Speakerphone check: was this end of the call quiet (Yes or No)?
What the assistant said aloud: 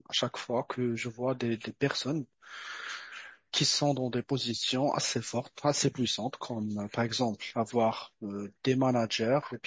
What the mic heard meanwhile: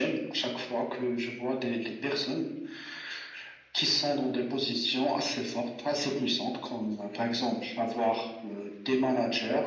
Yes